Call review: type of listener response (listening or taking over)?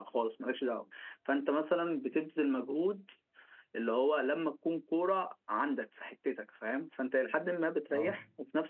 listening